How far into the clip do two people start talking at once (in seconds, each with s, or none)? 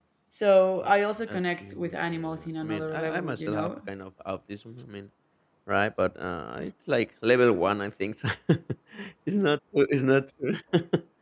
1.3 s